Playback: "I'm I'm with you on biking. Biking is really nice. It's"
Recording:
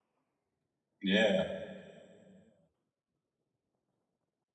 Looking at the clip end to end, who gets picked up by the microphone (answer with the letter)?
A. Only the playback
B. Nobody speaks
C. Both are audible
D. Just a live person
D